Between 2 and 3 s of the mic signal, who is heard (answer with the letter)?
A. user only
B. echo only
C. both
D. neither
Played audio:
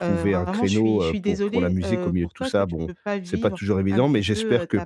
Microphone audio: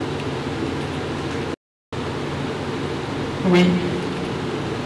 D